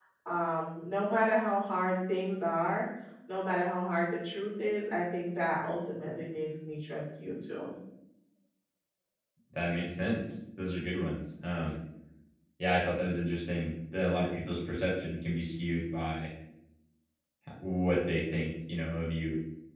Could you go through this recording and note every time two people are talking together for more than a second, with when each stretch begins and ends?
none

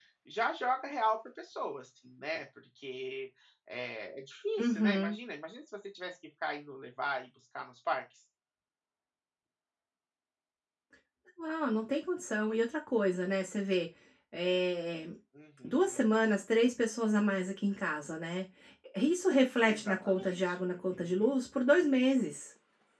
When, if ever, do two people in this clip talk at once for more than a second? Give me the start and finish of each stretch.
19.6-21.3

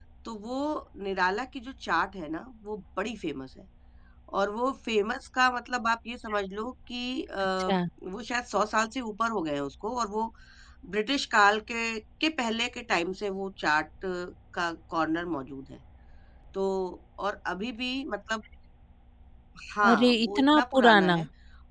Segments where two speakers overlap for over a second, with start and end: 19.9-21.1

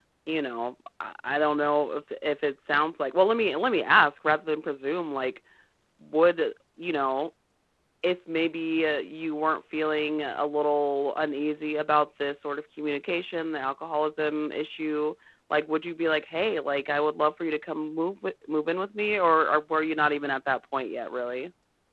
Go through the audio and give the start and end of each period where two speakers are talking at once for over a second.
none

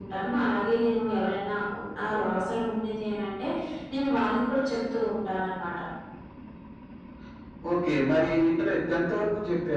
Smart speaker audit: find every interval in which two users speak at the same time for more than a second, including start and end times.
none

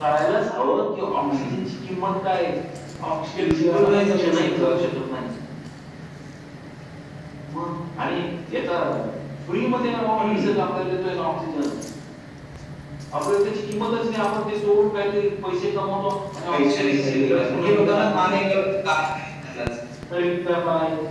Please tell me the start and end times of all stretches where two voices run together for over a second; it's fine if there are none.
3.4-4.8, 16.5-18.3

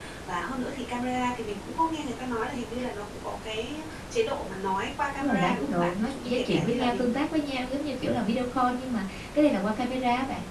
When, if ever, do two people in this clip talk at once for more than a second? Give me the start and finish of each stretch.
5.2-7.2

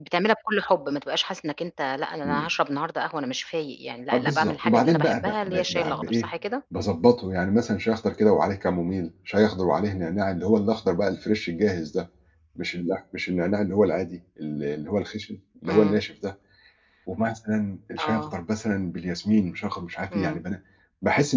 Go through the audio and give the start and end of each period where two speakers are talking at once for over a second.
4.1-6.3

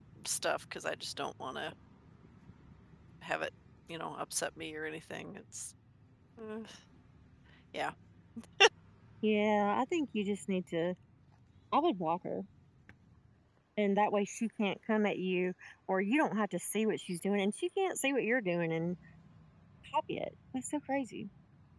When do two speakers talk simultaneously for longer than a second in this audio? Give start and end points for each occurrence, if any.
none

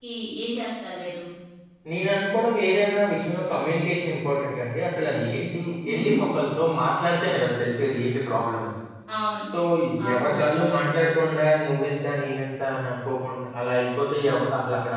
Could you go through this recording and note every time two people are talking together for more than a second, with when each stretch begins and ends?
none

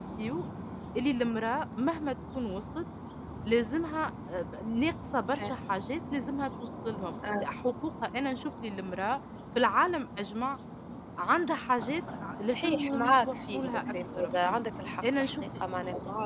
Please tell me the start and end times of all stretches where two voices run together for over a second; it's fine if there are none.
12.4-14.6

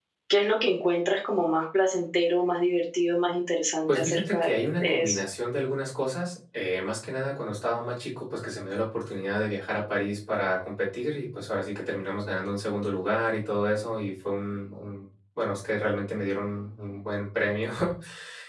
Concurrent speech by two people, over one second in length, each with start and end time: 3.9-5.2

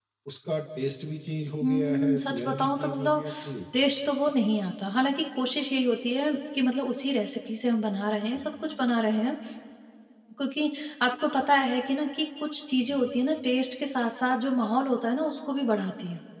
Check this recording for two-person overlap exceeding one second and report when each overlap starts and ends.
1.6-3.2

